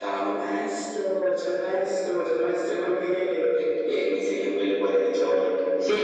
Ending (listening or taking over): taking over